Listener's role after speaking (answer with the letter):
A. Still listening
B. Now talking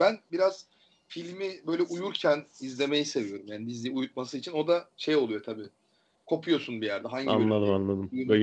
B